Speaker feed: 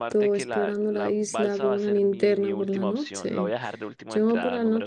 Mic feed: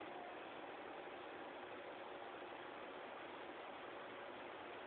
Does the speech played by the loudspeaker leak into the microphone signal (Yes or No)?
No